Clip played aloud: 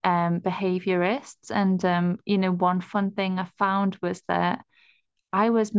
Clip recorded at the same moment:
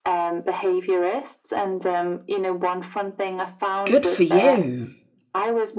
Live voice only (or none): good for you.